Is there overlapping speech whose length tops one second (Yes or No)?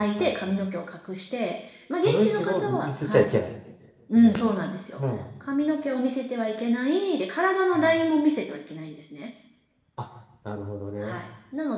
Yes